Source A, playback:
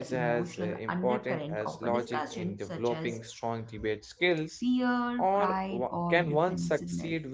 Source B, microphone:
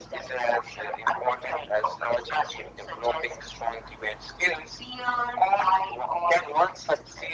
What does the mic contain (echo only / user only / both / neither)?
echo only